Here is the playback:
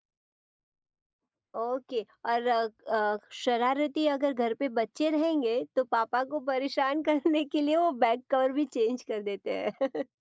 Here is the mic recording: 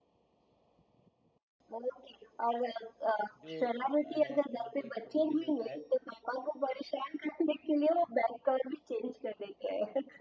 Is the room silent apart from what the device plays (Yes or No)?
No